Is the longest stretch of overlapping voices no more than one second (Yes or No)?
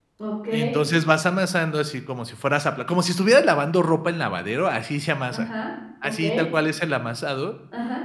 Yes